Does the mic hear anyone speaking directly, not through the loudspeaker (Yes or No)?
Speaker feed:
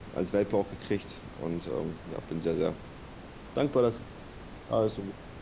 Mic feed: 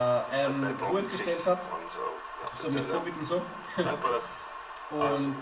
Yes